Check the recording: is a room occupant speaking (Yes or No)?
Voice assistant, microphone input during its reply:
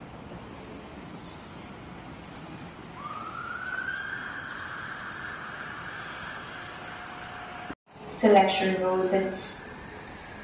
Yes